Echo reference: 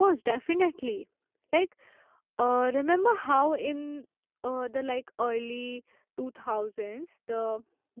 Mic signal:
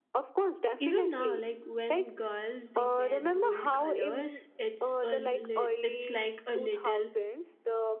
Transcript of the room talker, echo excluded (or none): Even now, like when girls they wear bold colors, it's a li- it's like a little